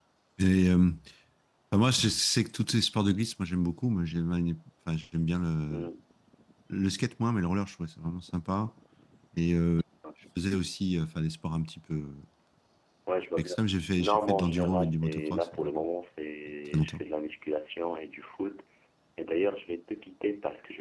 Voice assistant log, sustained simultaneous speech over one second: present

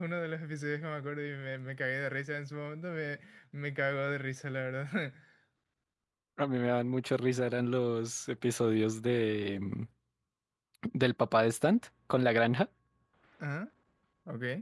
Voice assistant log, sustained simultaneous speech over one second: none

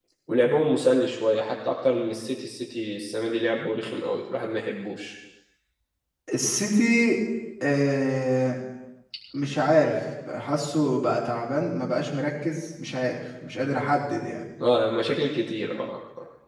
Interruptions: none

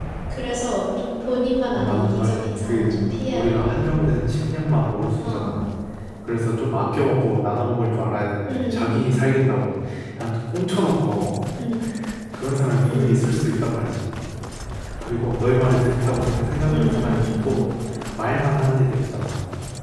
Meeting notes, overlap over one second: present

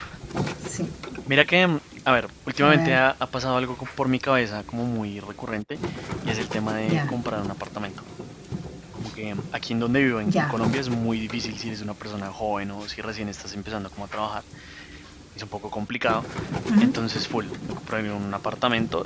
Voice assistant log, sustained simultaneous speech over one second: none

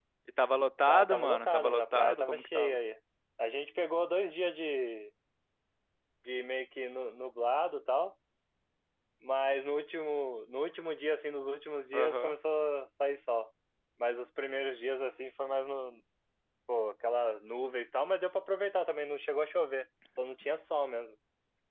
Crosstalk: present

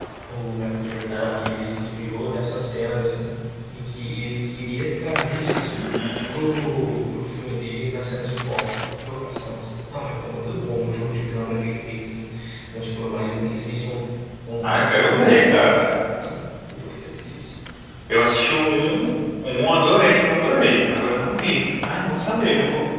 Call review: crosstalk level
present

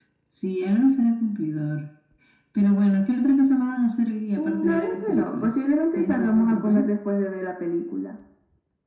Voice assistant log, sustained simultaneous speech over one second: present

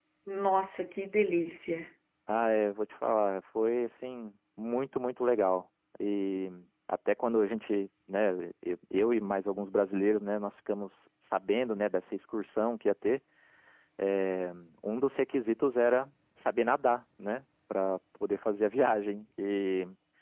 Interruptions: none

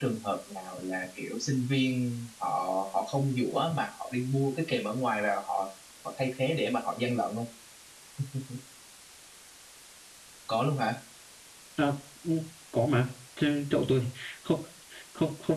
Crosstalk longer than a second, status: none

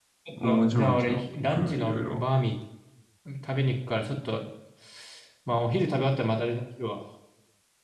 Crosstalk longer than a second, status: present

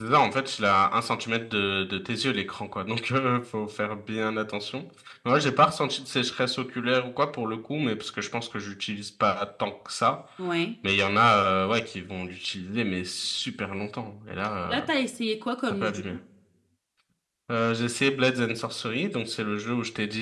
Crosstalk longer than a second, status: none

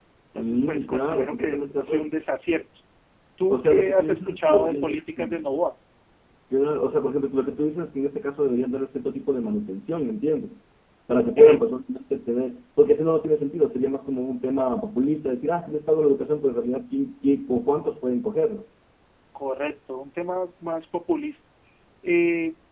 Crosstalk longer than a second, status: present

